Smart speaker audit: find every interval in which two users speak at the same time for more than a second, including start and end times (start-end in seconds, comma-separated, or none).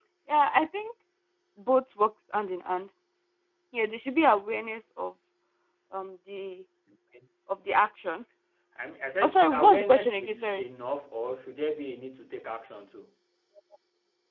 9.2-10.6